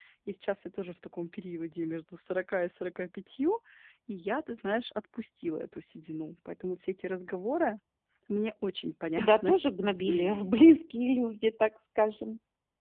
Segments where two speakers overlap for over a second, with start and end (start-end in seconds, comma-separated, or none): none